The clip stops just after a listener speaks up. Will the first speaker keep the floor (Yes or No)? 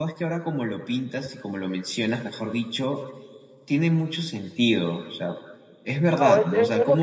No